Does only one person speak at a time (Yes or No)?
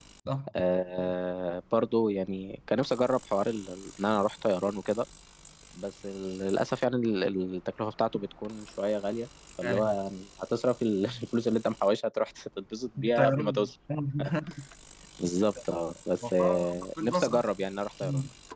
No